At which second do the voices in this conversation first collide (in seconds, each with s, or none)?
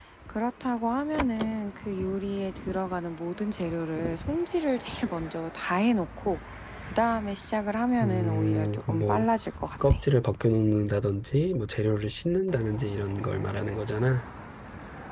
8.0 s